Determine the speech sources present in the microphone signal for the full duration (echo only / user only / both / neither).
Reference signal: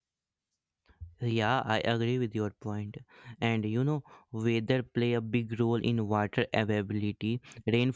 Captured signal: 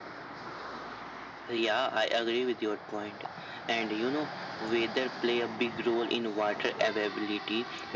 echo only